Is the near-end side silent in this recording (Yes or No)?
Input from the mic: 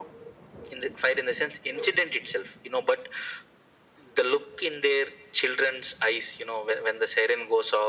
Yes